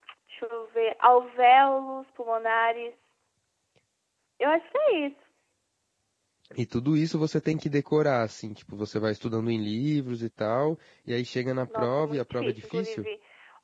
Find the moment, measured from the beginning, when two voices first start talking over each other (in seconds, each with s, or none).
11.7 s